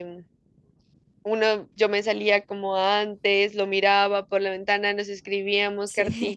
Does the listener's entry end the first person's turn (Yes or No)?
No